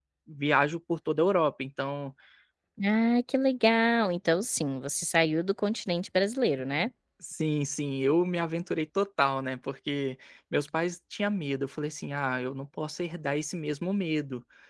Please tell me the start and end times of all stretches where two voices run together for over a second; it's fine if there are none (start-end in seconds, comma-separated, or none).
none